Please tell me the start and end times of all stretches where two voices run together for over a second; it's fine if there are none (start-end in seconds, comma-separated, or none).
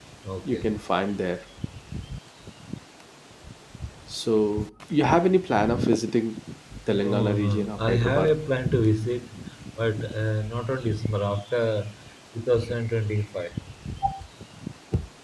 6.9-8.3